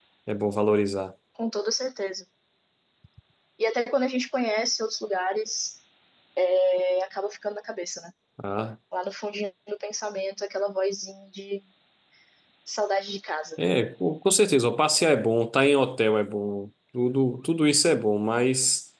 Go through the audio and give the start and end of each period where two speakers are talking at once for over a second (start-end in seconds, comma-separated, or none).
none